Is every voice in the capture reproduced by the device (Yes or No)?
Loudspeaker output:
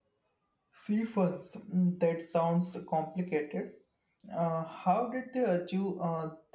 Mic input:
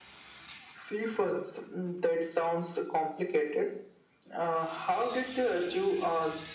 Yes